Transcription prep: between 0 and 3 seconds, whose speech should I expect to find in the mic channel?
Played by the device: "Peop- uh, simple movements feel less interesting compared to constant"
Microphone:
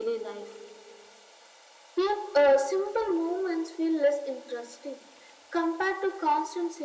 echo only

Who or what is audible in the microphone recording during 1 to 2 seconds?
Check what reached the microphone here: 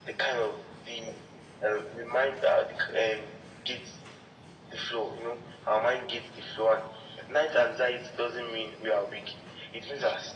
echo only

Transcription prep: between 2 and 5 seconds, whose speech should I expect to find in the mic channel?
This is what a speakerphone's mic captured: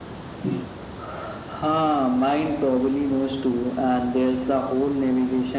echo only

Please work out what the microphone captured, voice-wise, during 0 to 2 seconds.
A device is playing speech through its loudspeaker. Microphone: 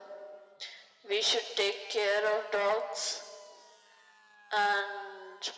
echo only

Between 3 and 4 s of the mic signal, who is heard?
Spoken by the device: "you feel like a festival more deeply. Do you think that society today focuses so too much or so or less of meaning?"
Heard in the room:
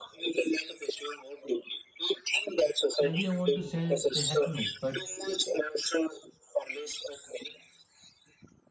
both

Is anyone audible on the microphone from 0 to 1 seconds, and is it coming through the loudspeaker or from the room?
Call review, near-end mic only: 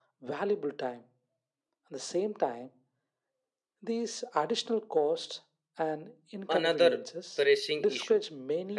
echo only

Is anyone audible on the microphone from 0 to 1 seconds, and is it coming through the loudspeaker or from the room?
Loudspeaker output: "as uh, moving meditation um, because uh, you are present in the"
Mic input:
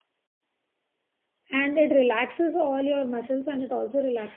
neither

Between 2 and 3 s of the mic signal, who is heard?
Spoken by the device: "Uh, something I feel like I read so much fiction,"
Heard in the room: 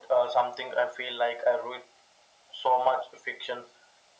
echo only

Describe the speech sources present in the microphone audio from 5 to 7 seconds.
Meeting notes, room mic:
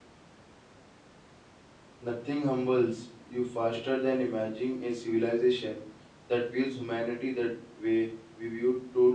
user only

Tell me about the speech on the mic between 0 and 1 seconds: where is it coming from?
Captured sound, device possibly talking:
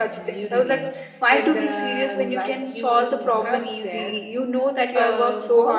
echo only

